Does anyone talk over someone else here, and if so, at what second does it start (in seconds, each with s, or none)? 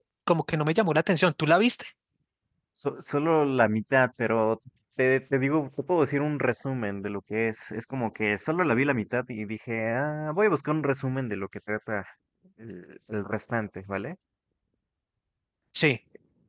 none